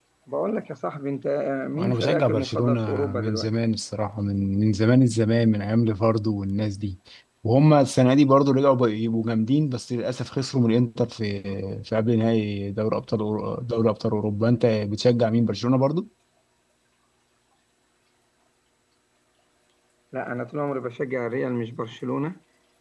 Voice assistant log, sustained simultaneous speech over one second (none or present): present